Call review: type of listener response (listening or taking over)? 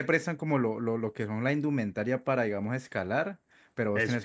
listening